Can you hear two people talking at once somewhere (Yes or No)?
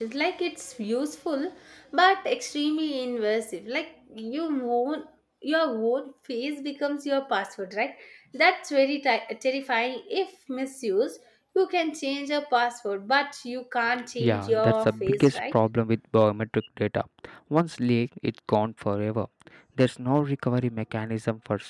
Yes